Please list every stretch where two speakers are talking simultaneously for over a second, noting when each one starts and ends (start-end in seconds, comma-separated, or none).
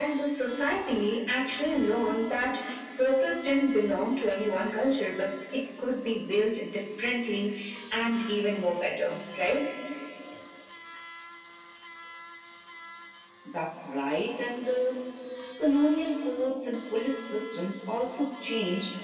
none